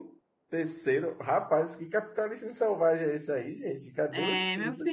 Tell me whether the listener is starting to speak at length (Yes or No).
Yes